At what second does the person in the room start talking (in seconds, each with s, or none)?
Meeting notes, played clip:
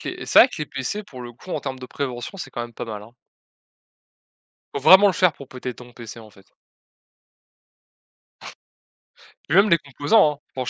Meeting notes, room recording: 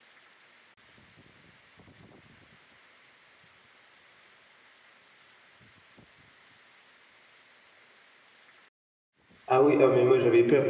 9.5 s